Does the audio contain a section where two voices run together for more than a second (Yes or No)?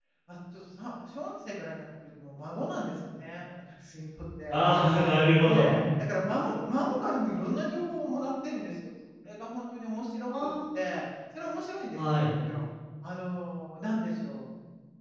No